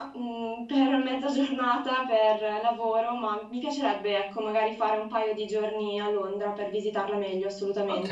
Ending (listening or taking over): taking over